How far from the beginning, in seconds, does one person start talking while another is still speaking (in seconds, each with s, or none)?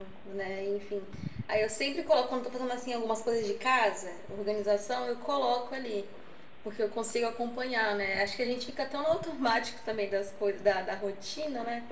none